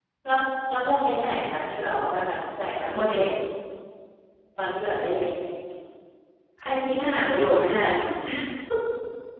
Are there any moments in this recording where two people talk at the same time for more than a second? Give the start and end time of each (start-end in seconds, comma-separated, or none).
none